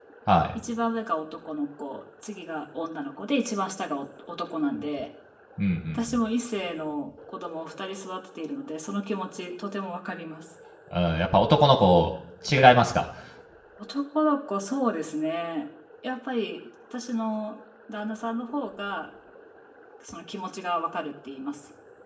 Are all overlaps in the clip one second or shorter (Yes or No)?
Yes